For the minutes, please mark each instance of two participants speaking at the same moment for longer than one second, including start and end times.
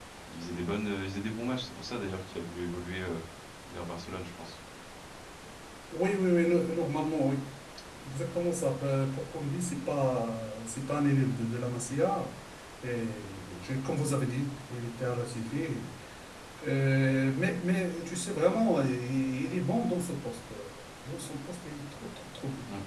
none

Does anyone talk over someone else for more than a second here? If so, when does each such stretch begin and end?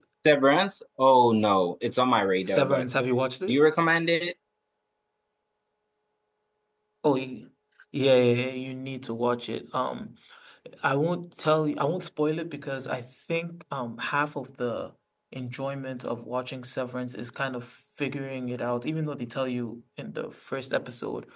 none

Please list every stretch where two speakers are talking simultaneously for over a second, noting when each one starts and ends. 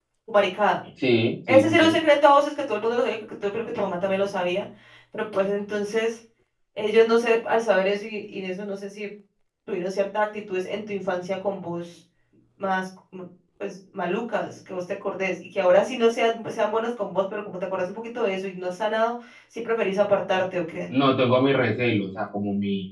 none

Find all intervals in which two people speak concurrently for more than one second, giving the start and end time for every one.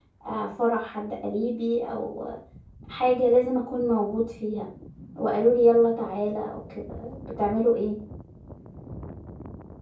none

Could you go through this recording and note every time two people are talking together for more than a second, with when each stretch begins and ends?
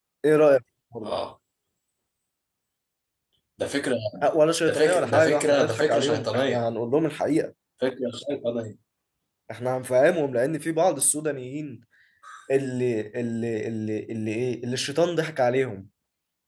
4.7-6.6

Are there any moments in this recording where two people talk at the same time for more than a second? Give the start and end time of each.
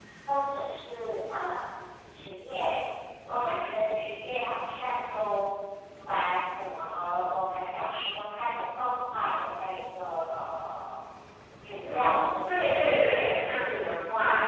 11.8-13.3

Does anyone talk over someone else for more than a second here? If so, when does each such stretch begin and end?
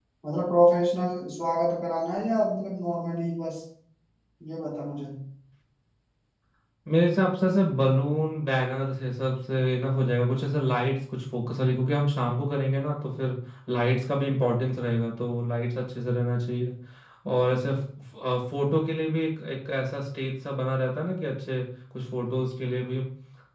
none

